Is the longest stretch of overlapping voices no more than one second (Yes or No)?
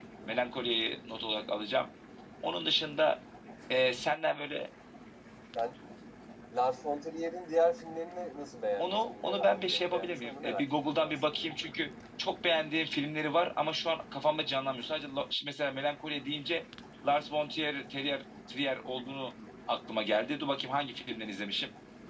No